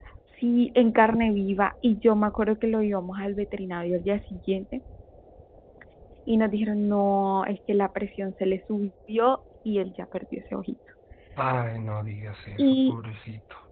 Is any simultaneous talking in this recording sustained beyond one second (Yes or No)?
No